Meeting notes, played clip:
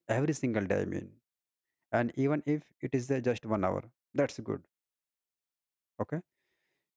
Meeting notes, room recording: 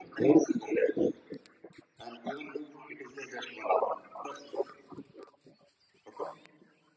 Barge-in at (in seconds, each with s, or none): none